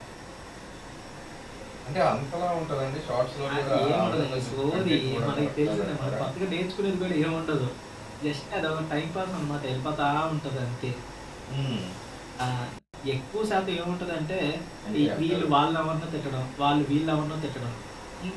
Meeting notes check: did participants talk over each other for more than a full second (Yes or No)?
Yes